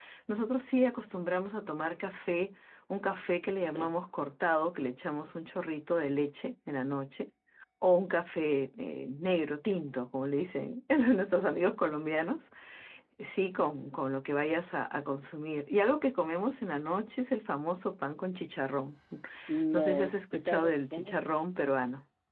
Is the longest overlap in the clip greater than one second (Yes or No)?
Yes